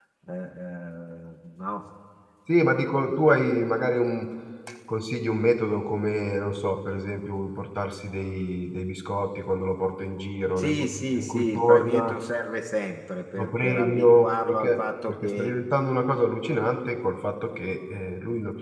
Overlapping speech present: Yes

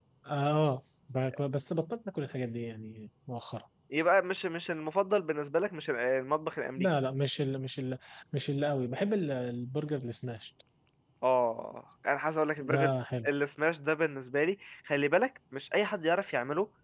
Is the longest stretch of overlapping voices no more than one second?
Yes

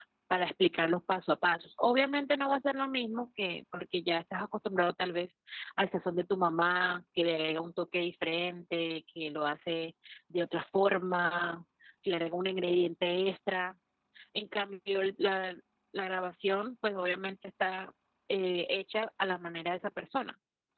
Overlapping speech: No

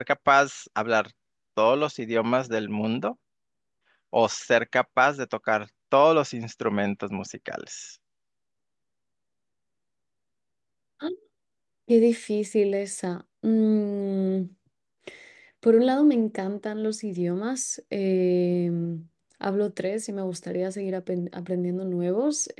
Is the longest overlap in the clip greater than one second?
No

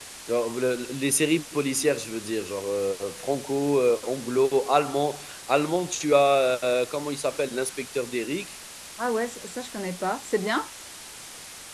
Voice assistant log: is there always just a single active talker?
Yes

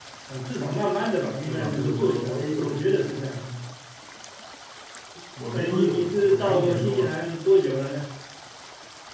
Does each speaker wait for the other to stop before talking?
No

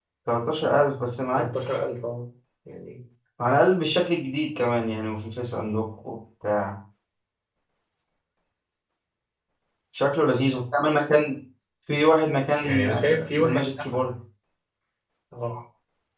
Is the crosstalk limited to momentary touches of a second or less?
No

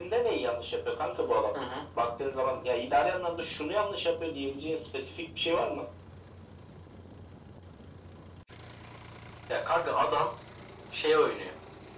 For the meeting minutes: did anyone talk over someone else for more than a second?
No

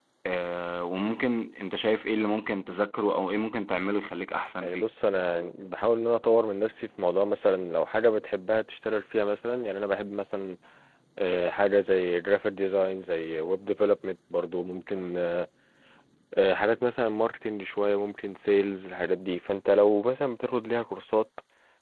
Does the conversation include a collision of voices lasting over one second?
No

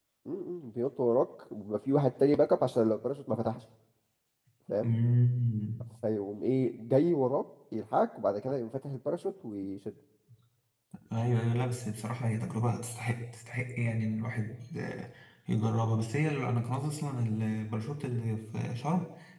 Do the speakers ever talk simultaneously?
No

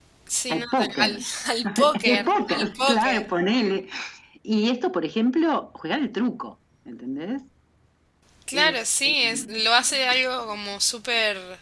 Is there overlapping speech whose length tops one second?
Yes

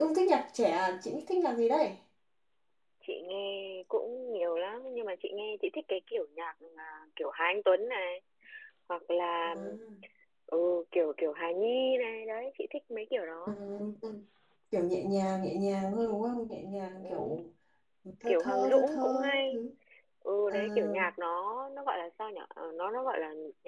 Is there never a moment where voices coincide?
No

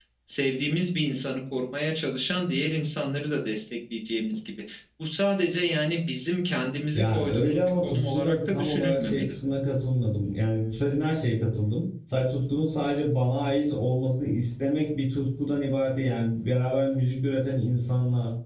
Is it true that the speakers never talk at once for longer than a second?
No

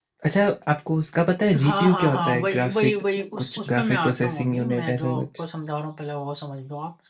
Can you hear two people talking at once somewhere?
Yes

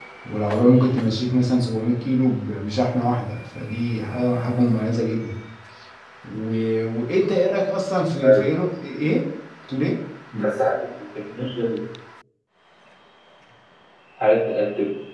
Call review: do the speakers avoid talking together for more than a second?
Yes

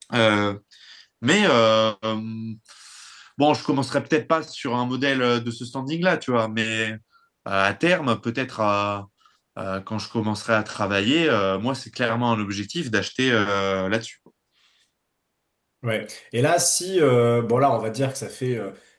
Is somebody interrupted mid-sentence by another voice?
No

